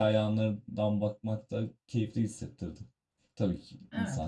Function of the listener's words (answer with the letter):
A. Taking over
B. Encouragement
A